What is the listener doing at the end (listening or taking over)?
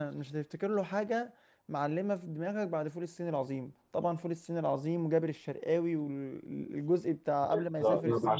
taking over